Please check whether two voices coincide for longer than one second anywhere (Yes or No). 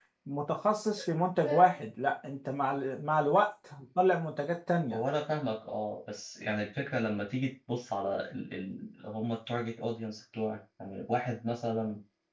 No